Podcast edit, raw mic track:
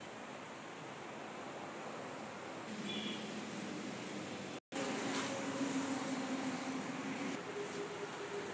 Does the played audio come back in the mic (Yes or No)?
No